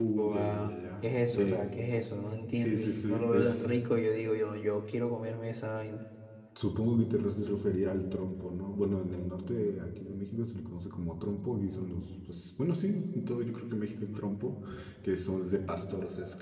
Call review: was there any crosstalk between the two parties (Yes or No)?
Yes